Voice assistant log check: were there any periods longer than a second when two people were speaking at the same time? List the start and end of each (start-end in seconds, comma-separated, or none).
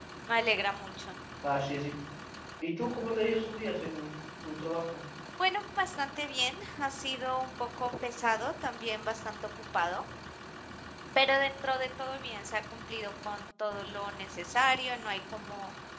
none